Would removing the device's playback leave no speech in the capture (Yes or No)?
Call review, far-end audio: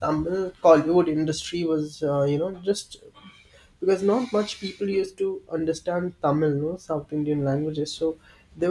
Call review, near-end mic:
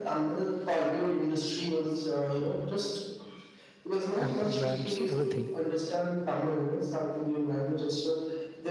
No